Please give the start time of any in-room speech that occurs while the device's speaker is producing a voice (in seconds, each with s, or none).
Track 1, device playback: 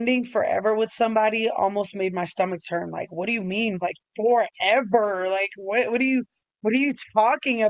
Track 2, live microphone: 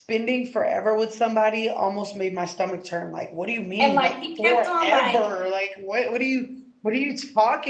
3.8 s